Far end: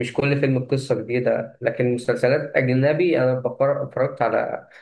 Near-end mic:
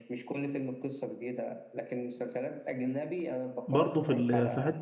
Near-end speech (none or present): present